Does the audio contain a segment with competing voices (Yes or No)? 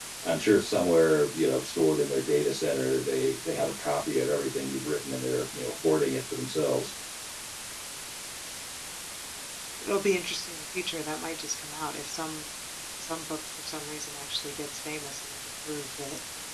No